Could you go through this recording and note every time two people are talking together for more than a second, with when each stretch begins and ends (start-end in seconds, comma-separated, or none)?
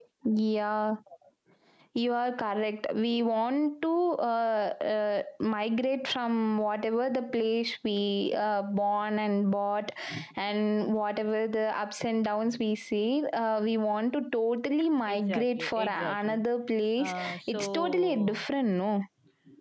15.1-16.4, 17.0-18.4